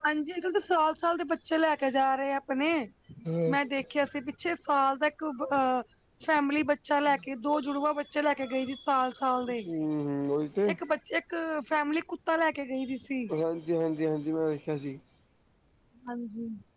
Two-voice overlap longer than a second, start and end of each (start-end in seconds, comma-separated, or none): none